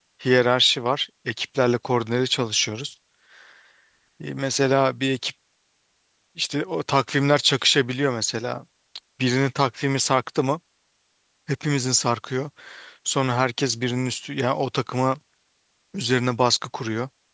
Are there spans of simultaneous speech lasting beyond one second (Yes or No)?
No